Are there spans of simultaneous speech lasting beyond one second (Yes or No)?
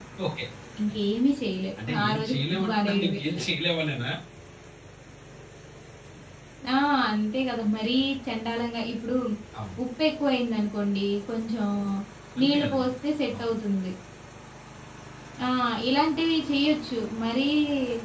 Yes